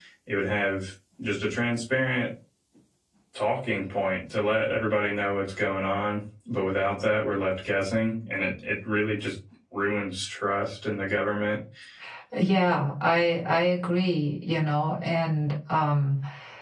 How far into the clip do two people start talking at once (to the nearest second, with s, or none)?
none